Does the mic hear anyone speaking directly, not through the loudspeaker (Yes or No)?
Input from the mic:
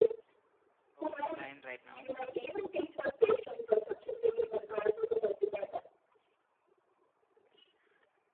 Yes